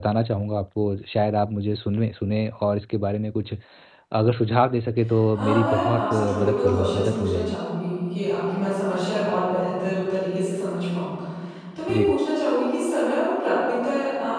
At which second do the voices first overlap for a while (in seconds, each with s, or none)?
5.3 s